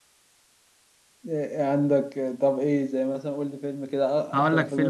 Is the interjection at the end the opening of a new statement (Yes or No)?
Yes